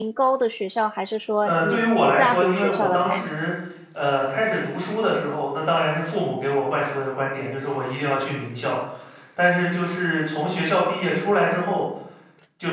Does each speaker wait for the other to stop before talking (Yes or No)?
No